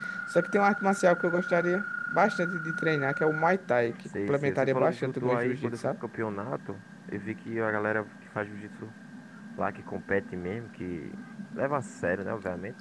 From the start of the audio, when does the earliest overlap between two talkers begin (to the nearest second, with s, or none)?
4 s